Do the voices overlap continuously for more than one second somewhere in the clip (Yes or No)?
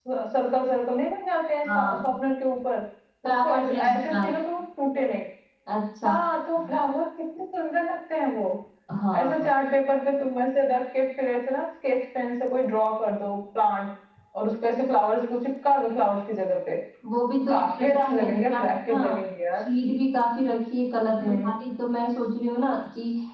Yes